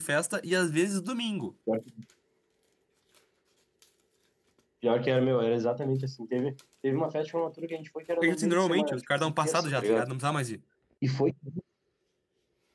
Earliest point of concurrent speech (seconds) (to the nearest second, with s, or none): 8 s